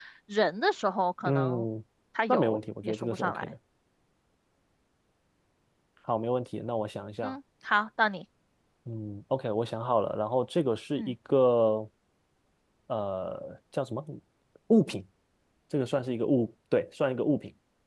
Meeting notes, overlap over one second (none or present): present